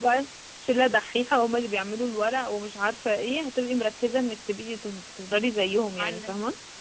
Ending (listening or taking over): taking over